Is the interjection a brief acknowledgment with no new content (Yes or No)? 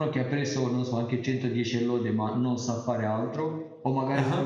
Yes